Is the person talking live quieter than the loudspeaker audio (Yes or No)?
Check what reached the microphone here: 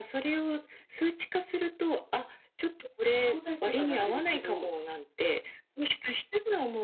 Yes